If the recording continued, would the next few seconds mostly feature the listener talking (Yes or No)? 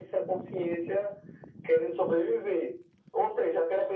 No